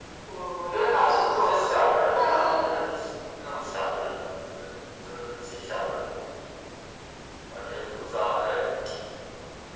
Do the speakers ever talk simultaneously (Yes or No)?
Yes